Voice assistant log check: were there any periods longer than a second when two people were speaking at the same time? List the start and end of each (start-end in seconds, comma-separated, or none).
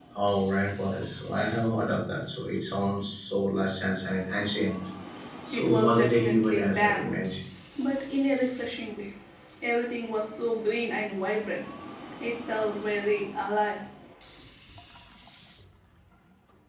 5.5-7.1